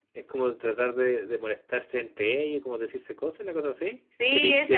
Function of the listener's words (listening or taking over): taking over